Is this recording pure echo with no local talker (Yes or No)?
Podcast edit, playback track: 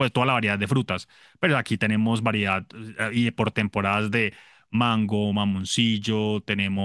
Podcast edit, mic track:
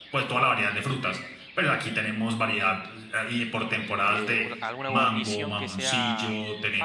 No